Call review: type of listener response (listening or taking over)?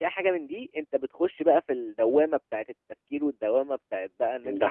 listening